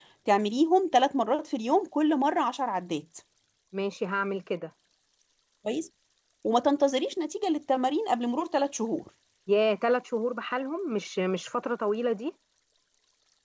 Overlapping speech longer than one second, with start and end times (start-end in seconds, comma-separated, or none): none